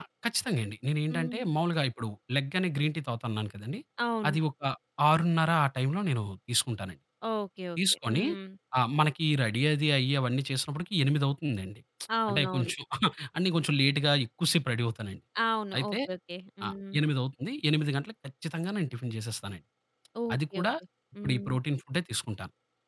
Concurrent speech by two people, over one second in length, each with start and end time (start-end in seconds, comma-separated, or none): none